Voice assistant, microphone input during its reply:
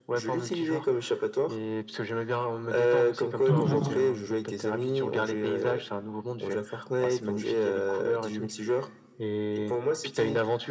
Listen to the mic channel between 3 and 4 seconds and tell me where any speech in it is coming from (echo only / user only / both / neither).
both